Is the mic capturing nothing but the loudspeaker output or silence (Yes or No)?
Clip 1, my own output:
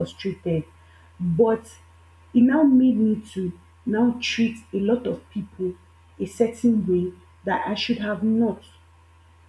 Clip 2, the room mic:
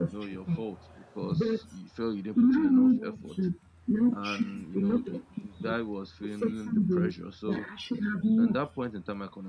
No